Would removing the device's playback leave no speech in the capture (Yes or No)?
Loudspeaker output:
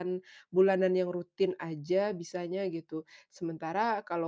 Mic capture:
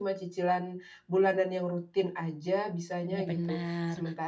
No